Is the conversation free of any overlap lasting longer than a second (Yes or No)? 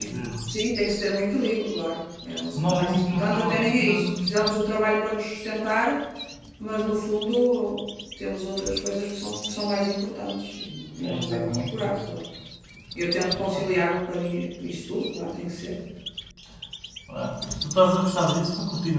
No